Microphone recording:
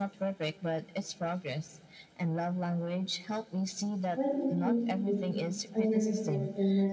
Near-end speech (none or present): present